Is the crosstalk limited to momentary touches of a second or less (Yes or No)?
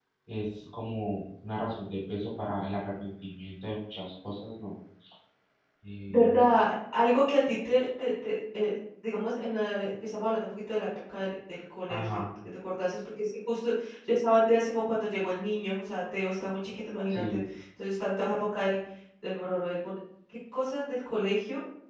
Yes